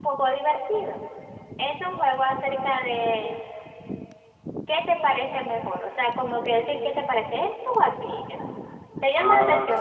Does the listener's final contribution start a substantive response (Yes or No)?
Yes